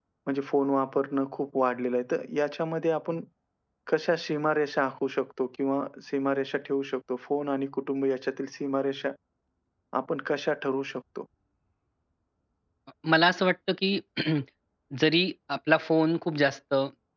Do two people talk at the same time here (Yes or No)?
No